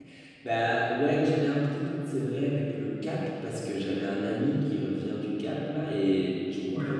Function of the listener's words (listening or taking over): listening